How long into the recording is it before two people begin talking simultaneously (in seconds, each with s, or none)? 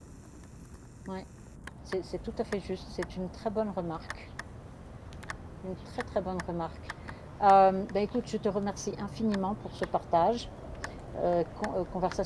none